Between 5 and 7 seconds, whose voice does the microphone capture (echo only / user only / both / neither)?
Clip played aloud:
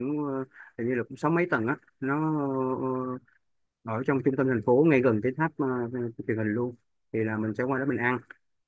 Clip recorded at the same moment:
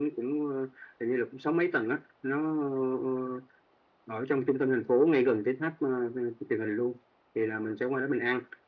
echo only